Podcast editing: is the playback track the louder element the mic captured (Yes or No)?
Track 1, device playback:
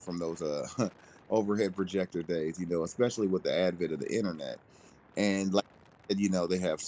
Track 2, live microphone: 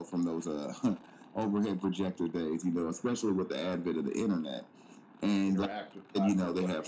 Yes